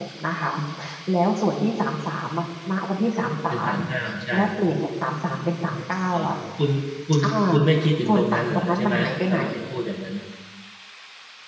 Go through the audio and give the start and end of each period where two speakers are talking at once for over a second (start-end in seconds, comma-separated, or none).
8.1-9.4